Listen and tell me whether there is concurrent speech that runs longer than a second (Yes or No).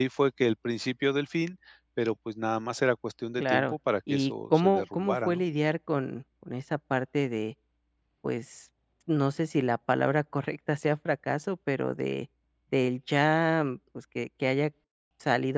Yes